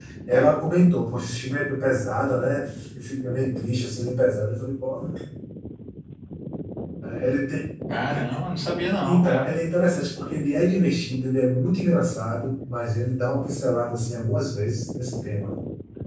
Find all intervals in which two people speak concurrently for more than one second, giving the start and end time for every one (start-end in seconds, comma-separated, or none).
none